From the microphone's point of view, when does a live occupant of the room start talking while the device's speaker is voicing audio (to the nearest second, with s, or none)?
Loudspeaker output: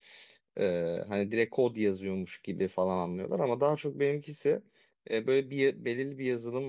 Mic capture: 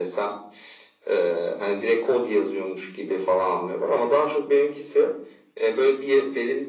none